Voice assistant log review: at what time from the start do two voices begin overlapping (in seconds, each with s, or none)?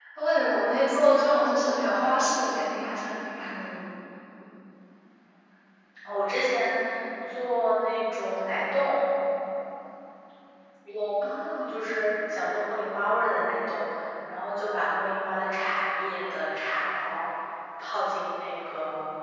none